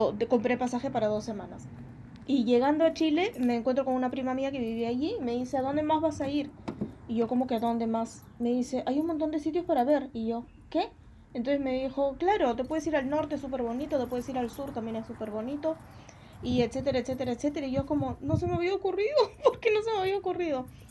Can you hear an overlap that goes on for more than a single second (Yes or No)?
No